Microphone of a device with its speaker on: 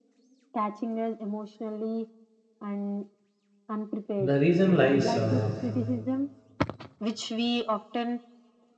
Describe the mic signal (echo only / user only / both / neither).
both